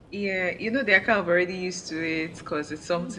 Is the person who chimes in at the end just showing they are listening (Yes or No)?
Yes